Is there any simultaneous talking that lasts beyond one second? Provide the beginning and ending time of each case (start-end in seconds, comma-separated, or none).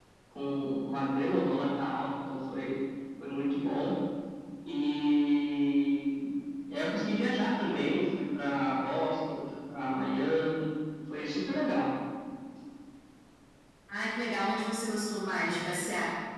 none